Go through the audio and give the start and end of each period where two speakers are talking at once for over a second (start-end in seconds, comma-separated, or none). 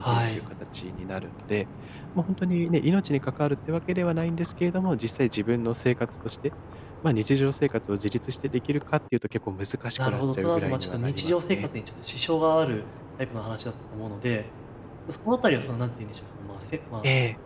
10.0-11.6